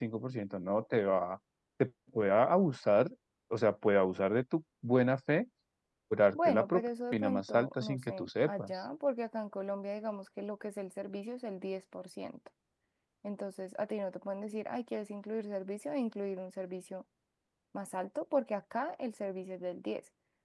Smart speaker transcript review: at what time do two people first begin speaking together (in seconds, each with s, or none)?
6.3 s